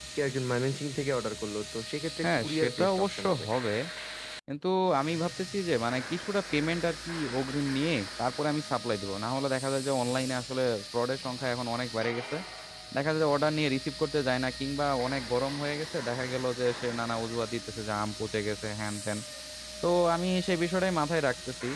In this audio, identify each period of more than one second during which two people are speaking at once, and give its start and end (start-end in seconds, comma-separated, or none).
2.2-3.5